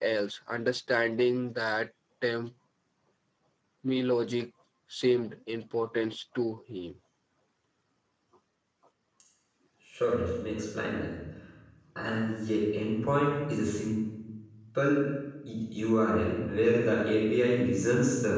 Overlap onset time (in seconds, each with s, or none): none